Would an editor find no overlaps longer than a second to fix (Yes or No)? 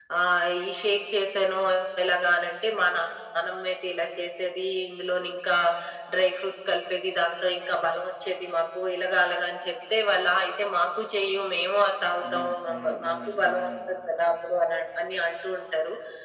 No